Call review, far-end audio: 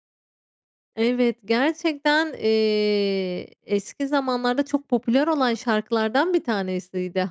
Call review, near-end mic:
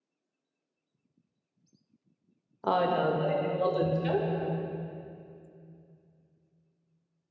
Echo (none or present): none